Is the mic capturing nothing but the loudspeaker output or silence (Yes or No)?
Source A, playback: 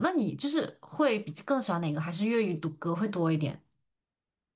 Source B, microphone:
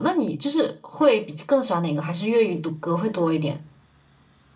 Yes